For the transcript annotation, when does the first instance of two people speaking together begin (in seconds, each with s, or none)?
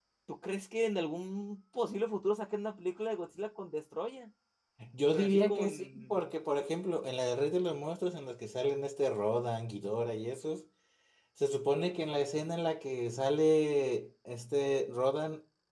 5.1 s